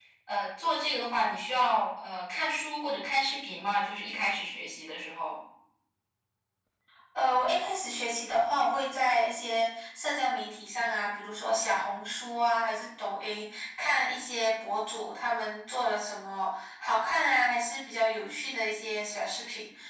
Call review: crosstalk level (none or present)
none